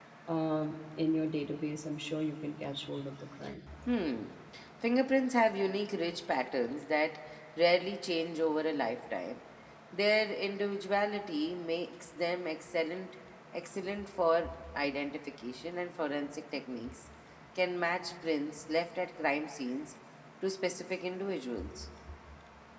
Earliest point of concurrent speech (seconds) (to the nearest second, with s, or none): none